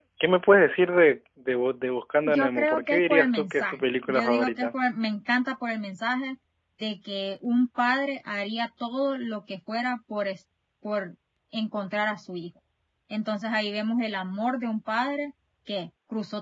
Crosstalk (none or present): present